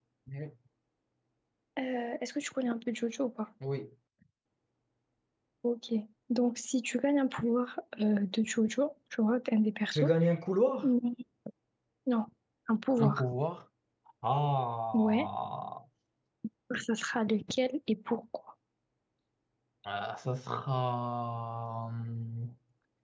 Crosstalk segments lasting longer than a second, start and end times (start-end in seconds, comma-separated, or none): none